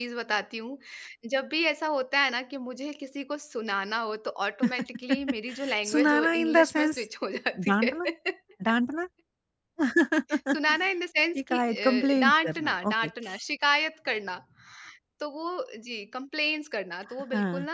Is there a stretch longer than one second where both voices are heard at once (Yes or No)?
Yes